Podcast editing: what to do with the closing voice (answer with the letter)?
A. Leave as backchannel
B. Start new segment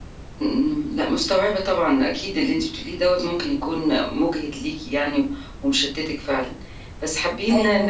A